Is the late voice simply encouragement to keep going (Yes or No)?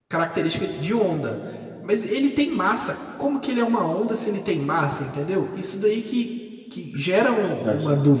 Yes